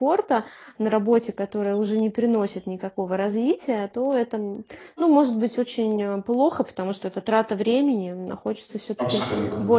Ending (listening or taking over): listening